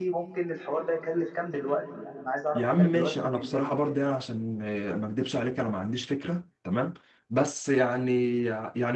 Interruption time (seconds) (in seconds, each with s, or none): 2.5 s